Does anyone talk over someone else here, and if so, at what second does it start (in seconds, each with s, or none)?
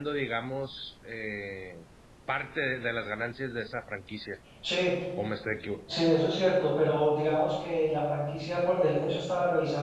none